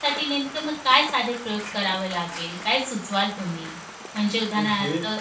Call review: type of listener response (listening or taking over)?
listening